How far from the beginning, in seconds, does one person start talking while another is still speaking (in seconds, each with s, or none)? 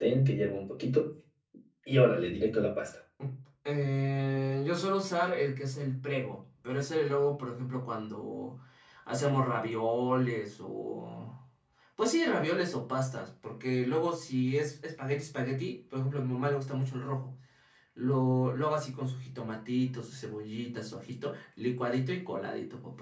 none